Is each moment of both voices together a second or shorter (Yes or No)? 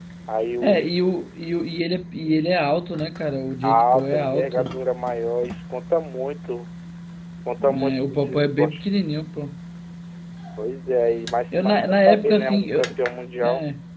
No